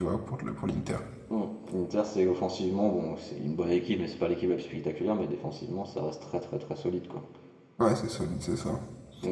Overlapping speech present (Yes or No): No